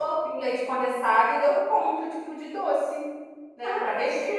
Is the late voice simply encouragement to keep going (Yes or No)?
No